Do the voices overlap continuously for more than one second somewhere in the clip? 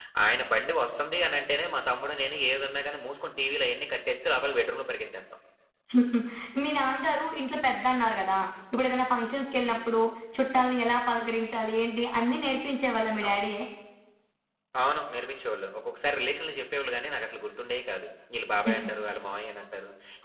No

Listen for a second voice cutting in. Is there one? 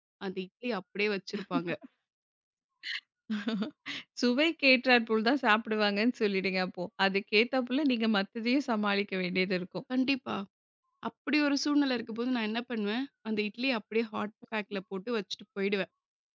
No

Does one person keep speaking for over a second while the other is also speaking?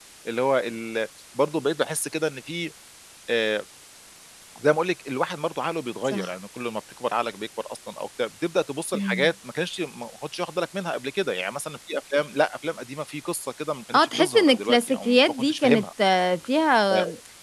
Yes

